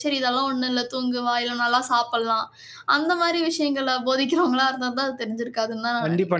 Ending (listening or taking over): taking over